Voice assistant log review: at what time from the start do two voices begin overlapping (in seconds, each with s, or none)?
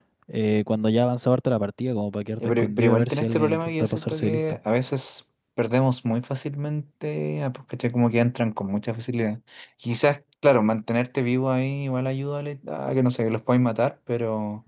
2.4 s